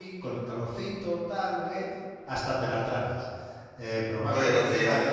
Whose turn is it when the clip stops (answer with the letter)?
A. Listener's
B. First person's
B